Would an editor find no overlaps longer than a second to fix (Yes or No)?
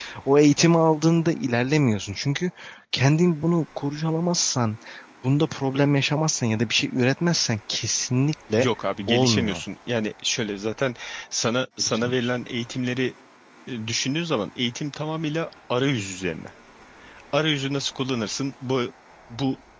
Yes